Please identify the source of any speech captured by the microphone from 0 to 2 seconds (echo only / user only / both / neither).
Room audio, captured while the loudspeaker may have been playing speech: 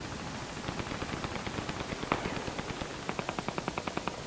neither